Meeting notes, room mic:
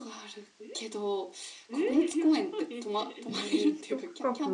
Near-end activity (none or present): present